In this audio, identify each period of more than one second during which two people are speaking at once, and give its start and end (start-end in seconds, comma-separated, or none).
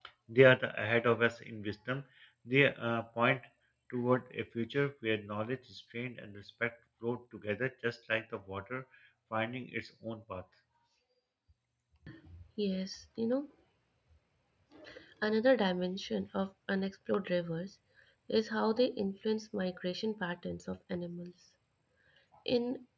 none